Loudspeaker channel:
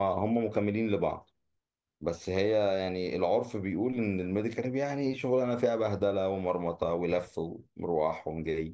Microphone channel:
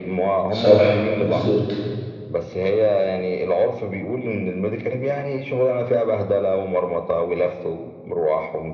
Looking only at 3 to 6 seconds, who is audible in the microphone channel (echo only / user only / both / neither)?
echo only